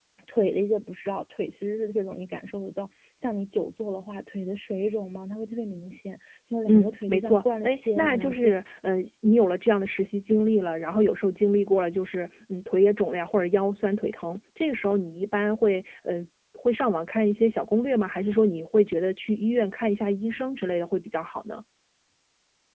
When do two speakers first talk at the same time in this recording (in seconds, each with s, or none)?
6.7 s